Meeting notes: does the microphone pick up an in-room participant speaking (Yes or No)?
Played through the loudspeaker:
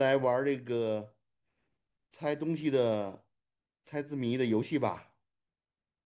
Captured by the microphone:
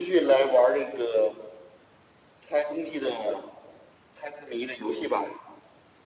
No